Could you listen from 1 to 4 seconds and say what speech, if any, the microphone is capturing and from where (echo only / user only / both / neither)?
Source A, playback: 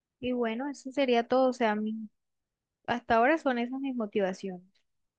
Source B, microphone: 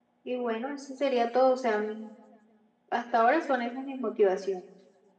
echo only